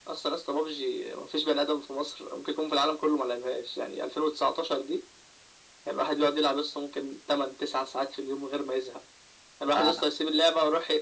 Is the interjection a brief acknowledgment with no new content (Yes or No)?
Yes